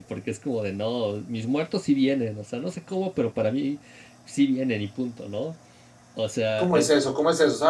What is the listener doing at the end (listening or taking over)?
taking over